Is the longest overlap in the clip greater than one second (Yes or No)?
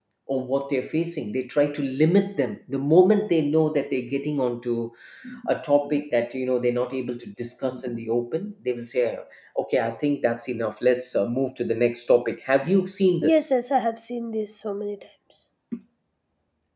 No